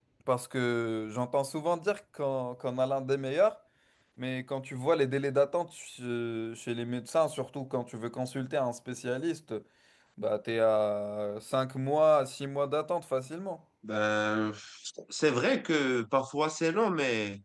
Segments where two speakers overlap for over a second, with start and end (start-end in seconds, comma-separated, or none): none